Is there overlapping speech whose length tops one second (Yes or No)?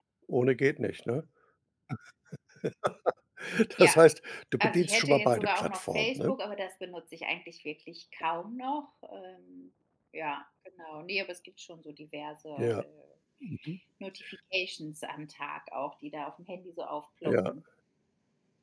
Yes